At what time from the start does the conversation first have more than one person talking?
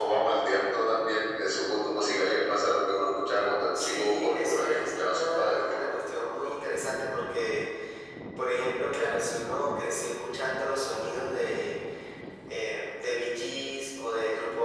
3.7 s

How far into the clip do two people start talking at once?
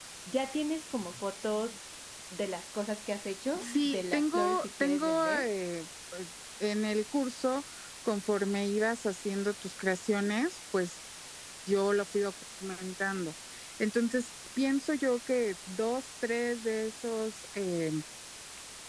3.5 s

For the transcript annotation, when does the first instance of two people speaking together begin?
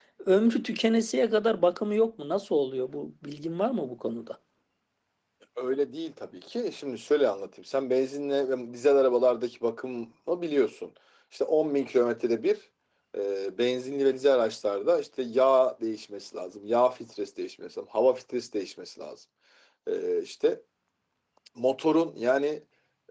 none

